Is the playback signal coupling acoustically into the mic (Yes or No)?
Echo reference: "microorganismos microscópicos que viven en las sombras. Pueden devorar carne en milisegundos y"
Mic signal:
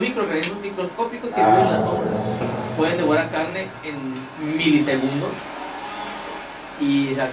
Yes